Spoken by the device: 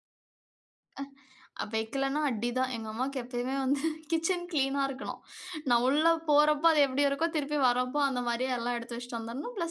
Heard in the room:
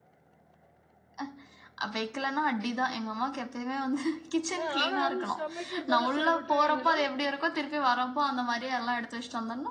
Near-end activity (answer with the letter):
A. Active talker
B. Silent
A